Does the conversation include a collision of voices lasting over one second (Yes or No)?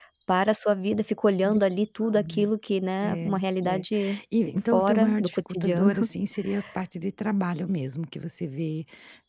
Yes